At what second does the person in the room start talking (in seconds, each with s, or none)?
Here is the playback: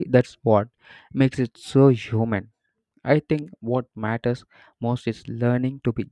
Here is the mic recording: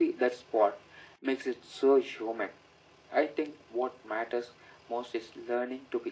none